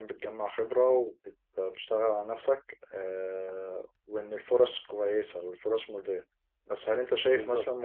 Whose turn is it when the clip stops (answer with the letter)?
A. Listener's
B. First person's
B